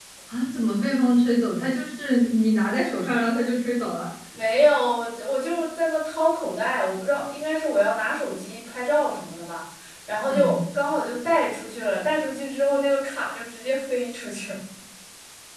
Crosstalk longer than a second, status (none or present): none